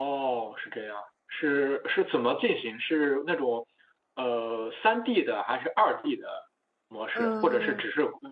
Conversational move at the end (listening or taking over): listening